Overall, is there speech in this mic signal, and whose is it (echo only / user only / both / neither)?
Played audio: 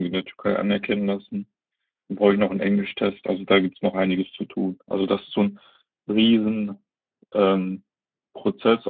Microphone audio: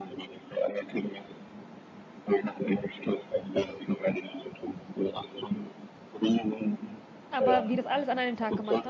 both